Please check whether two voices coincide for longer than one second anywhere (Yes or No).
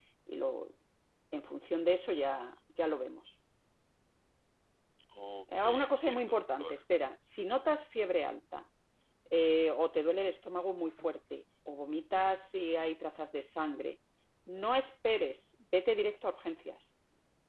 Yes